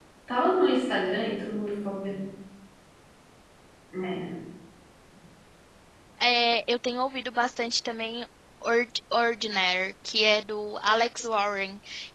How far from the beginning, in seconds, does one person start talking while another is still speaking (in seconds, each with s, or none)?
none